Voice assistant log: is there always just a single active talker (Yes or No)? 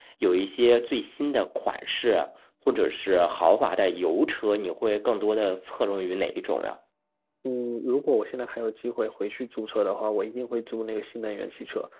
Yes